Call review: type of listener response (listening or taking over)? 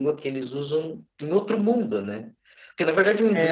listening